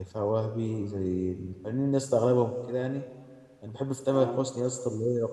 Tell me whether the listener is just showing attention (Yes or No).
Yes